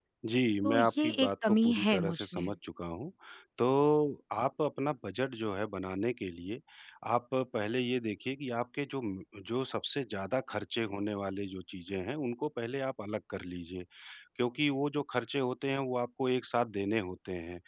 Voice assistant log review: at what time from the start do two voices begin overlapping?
0.6 s

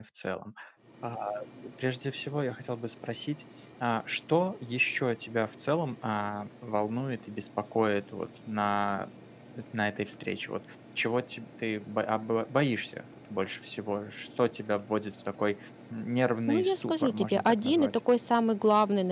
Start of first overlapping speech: 16.5 s

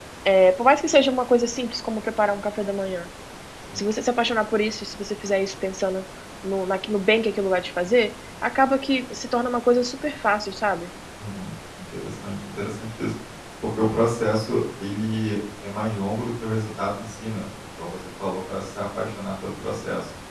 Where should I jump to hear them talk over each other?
none

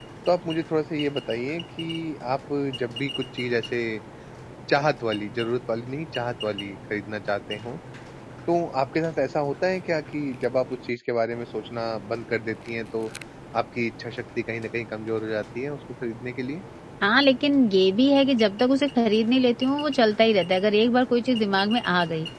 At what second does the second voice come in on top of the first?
none

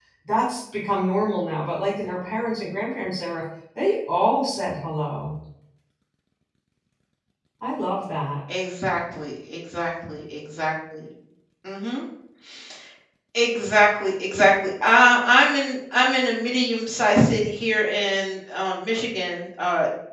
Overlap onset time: none

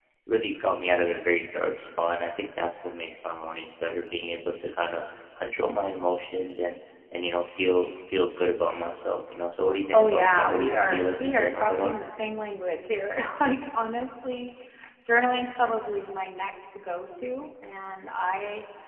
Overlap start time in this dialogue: 9.9 s

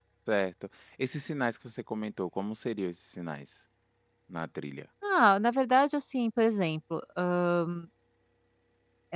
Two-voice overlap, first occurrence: none

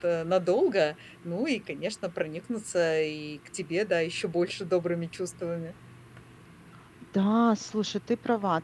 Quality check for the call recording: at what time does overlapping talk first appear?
none

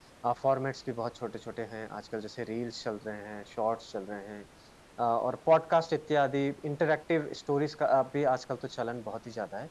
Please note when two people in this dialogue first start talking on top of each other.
none

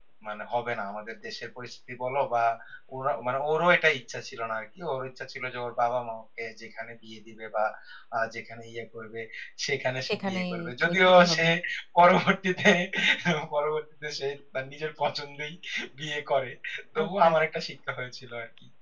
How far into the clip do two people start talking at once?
10.1 s

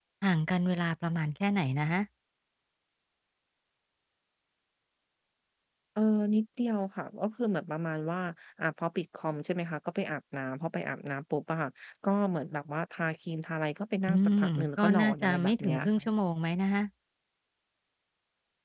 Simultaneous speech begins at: 14.1 s

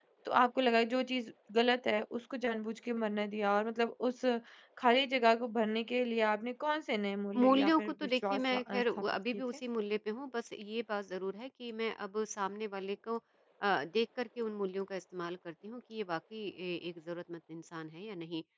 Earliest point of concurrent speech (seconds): 7.3 s

